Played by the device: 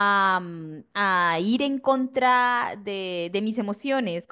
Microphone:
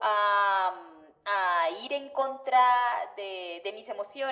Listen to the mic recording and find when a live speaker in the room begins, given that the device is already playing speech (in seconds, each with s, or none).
none